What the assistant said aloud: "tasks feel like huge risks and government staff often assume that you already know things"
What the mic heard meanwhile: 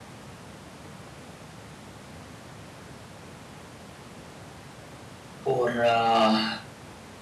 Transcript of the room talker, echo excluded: or uh,

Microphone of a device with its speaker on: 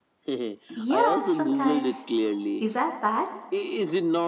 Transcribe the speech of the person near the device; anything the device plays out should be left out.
Yeah, sometimes. Is that bad?

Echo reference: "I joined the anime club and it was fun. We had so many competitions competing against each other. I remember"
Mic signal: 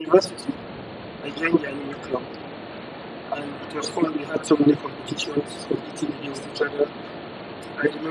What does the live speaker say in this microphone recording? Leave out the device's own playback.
none

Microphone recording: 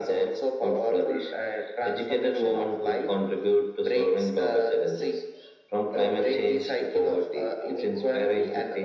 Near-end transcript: none

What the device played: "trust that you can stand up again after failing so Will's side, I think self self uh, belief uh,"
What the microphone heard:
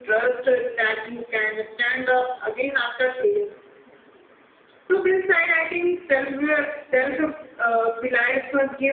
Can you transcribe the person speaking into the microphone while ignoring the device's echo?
none

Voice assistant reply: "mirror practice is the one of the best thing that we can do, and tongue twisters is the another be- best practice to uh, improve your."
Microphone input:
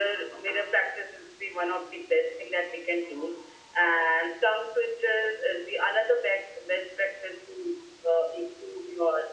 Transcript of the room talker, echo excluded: none

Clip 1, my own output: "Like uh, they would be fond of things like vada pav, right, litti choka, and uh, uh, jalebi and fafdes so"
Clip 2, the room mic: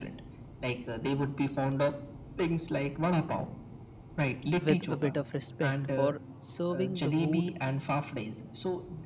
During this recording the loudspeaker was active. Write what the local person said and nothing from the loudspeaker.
with a bit of respect or serving the wood

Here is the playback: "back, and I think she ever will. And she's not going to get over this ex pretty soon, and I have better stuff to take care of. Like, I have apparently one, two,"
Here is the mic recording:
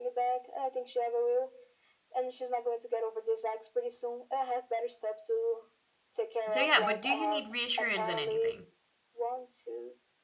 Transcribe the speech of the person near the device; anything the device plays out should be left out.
so yeah, but do you need reassurance on anything?

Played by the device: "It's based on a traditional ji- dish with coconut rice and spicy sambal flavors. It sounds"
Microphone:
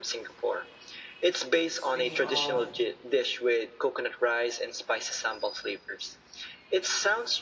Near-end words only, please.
Speaking of

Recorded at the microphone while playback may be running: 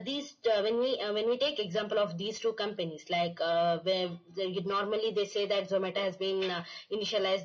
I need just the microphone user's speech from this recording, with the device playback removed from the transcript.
none

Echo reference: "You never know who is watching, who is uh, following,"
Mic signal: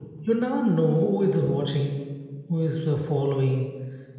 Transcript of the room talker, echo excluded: none

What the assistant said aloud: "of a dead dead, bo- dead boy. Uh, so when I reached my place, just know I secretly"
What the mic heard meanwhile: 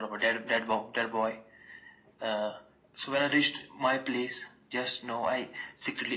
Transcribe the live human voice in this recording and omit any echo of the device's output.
none

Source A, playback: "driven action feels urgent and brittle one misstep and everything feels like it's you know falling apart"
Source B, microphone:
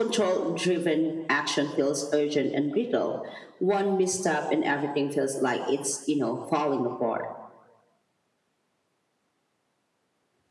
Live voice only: none

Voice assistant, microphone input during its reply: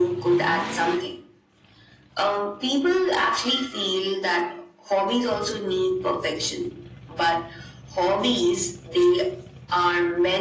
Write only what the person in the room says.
none

